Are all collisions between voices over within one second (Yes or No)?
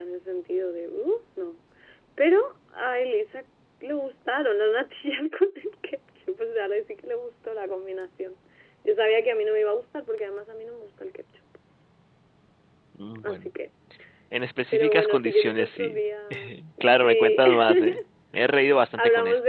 No